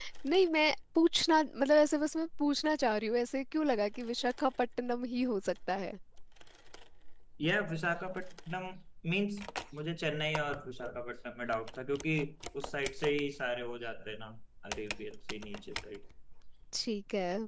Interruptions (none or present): none